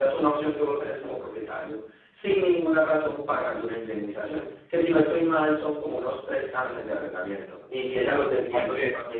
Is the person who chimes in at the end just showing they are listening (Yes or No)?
Yes